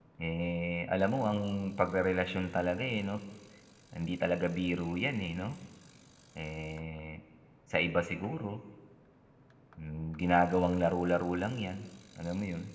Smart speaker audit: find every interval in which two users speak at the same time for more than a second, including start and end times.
none

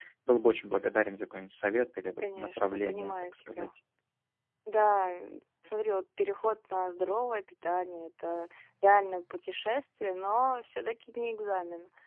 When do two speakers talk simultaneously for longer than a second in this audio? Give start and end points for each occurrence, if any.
2.2-3.7

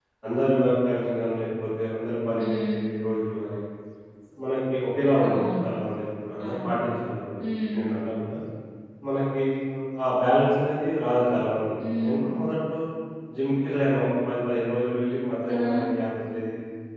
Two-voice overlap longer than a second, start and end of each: none

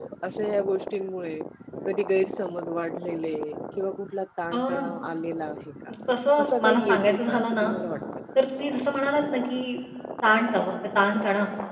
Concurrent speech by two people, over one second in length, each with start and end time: 6.4-7.7

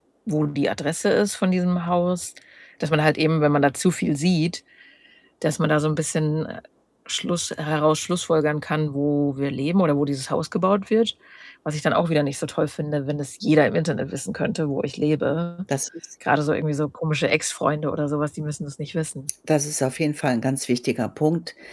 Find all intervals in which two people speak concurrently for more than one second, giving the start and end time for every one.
none

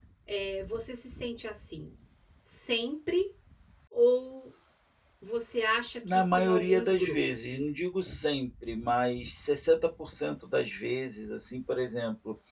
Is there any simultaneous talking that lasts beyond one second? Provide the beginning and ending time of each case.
6.1-7.6

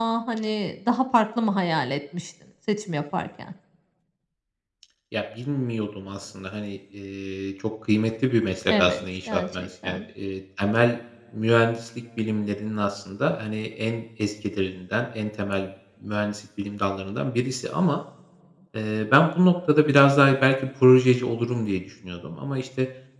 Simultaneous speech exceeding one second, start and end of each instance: 8.7-10.0

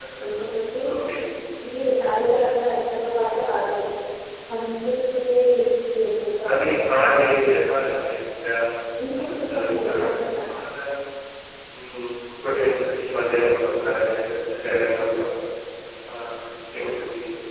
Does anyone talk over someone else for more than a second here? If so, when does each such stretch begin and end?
9.2-10.4

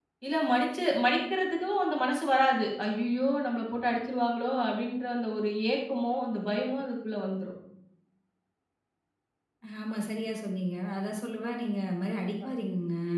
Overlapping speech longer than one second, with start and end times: none

